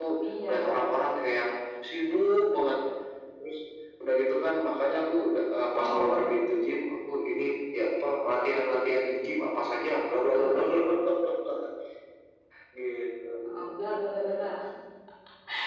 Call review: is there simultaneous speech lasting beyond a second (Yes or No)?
No